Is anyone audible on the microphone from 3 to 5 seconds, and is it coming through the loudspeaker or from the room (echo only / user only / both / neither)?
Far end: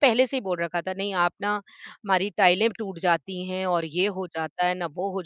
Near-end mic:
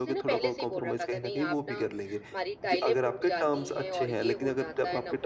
both